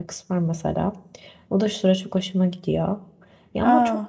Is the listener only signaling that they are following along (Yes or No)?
Yes